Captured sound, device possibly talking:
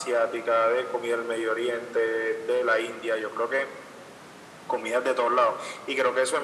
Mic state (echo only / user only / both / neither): echo only